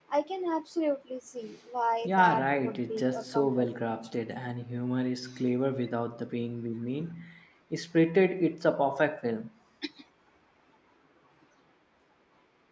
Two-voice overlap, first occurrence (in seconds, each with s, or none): 2.0 s